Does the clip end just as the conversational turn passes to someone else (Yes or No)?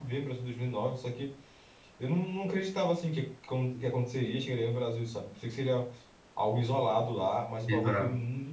No